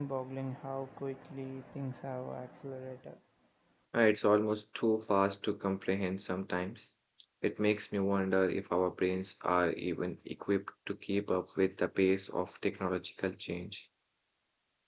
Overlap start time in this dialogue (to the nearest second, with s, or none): none